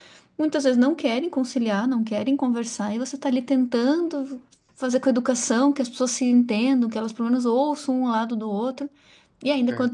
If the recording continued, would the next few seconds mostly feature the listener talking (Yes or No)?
No